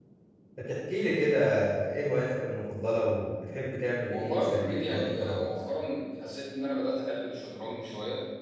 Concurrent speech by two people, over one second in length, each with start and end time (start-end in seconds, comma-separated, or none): 4.1-5.5